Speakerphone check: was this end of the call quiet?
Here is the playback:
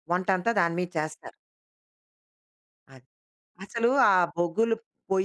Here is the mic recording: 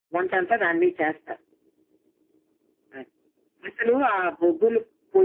Yes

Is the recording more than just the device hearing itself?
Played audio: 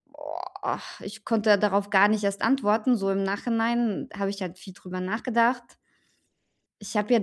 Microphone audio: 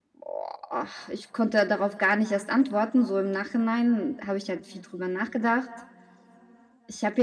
No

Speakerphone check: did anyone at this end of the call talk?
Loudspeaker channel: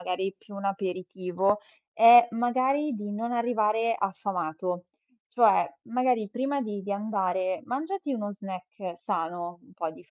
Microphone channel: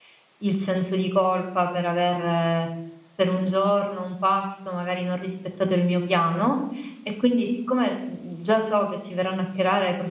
Yes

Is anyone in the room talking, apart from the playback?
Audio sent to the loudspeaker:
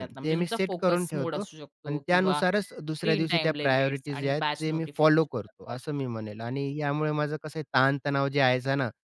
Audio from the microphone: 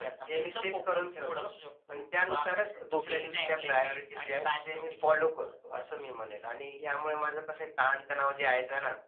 Yes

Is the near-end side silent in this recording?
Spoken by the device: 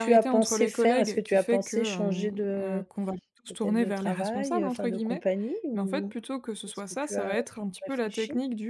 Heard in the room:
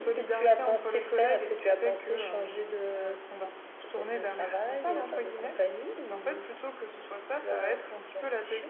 Yes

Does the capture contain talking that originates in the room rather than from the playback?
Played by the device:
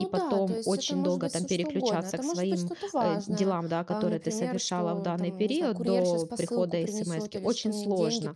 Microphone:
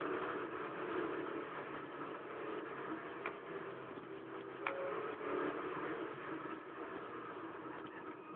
No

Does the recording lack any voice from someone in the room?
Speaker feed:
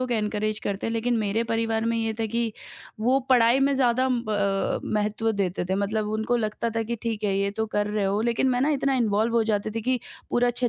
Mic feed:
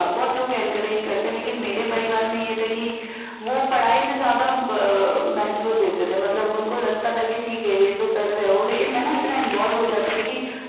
Yes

